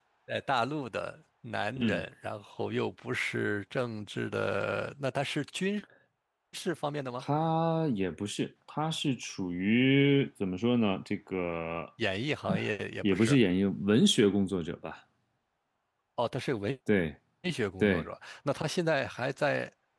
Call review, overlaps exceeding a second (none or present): none